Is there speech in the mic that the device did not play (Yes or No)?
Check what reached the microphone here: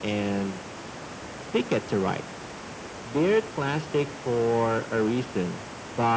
No